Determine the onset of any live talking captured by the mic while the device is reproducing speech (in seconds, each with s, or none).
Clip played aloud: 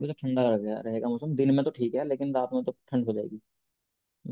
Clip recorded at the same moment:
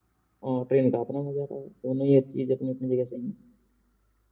0.5 s